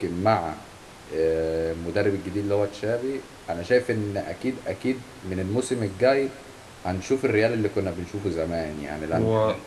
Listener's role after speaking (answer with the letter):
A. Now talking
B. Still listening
B